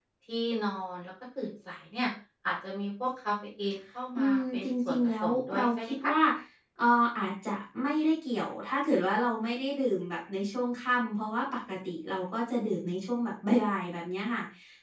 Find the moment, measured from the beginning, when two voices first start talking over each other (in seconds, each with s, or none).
4.2 s